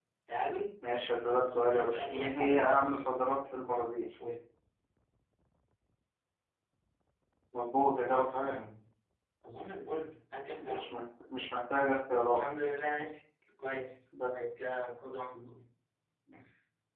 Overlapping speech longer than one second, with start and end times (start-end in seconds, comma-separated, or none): 1.4-3.1